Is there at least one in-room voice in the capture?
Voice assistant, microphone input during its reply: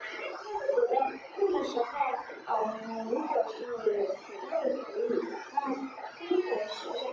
No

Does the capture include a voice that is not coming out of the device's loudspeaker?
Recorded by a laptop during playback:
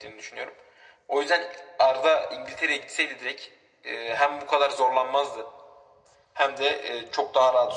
No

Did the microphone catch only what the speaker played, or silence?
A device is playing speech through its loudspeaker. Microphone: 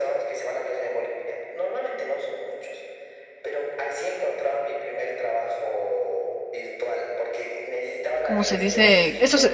No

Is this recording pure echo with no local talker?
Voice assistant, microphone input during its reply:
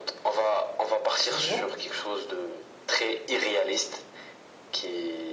No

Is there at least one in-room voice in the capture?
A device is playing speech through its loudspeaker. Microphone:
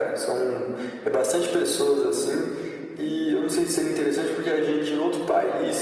No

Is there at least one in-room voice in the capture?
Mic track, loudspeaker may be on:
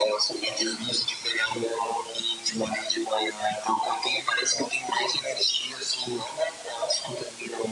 No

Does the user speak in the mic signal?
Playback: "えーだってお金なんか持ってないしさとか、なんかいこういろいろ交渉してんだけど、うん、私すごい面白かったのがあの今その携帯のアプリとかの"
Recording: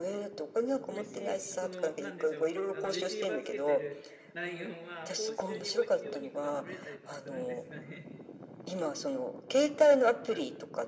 Yes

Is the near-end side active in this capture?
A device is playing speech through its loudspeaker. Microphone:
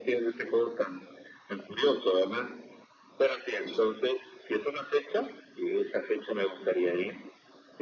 No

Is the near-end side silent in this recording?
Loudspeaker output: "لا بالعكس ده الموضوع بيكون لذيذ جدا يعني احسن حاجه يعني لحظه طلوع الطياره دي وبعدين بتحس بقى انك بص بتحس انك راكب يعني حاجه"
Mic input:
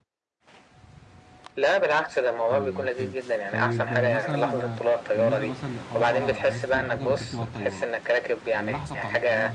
No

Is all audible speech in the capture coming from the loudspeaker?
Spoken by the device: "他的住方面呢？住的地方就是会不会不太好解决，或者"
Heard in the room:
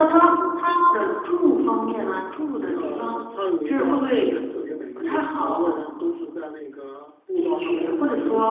No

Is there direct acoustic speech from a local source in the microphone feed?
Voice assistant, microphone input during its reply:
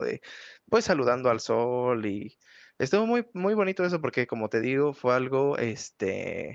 Yes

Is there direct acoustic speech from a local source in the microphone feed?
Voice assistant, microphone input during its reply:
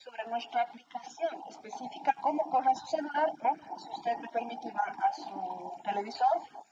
No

